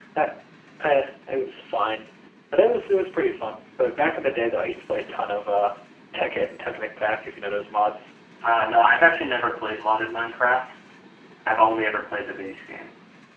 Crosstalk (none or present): none